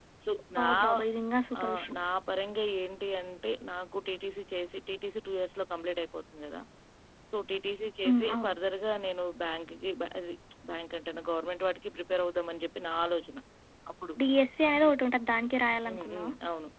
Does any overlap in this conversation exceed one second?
No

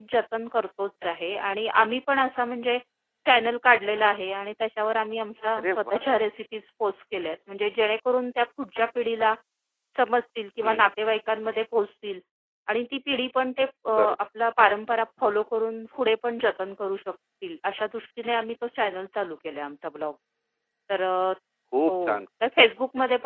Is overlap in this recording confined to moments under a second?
Yes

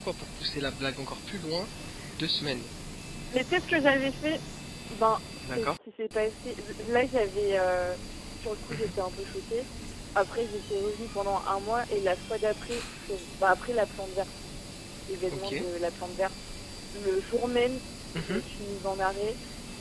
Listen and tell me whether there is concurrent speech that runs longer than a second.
No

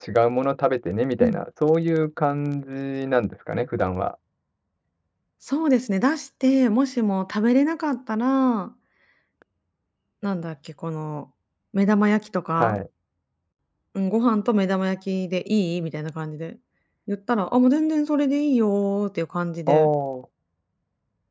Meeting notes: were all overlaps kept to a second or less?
Yes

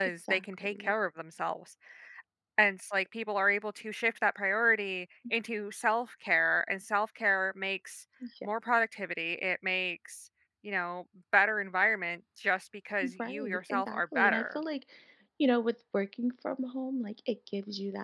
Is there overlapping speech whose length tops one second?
Yes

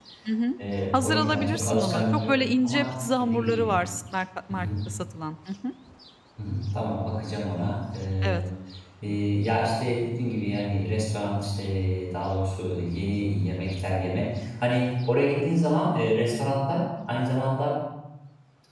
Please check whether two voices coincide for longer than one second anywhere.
Yes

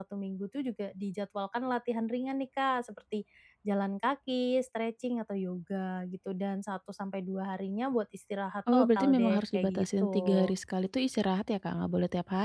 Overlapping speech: Yes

